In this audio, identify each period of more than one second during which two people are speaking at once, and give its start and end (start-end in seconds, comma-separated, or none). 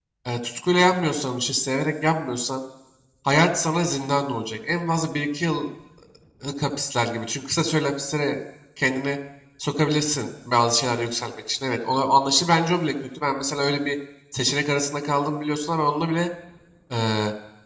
none